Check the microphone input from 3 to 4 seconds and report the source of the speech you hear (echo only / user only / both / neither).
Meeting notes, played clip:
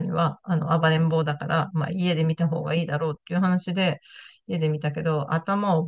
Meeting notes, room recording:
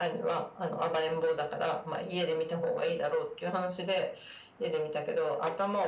echo only